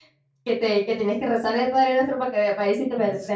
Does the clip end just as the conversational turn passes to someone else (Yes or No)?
Yes